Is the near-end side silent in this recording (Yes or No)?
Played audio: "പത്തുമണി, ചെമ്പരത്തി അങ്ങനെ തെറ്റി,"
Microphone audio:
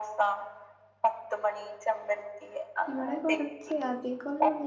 No